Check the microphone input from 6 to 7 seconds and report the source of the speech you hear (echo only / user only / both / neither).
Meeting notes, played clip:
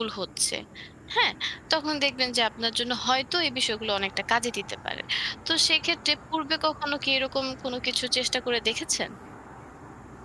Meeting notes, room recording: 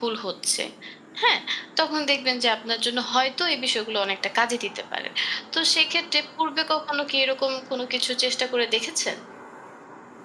echo only